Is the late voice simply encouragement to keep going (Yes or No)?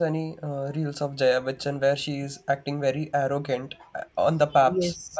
No